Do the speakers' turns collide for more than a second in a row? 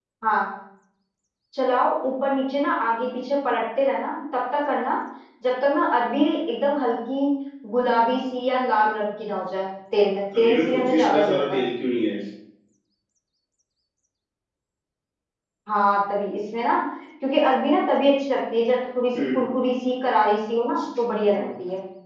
Yes, from 10.4 s

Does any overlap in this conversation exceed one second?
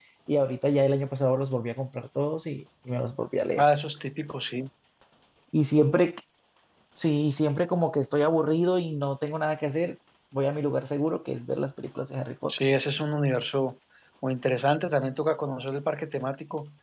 No

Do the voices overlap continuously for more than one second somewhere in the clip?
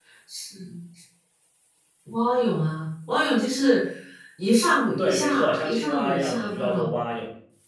Yes, from 5.0 s

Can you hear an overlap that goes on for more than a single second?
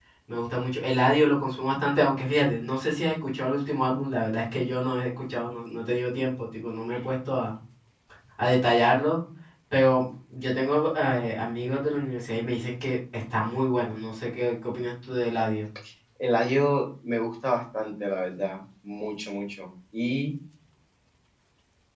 No

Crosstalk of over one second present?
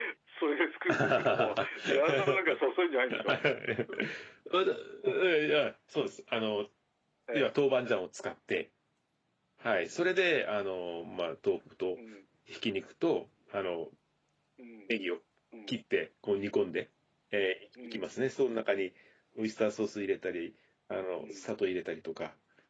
Yes, from 0.9 s

